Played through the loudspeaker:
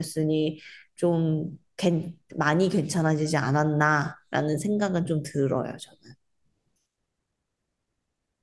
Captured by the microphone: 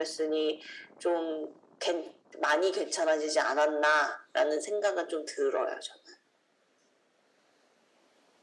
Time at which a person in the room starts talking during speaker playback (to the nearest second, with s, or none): none